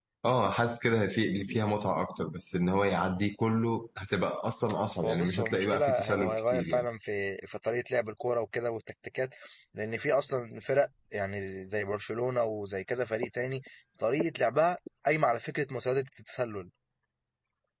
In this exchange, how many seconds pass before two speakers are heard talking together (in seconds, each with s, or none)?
5.0 s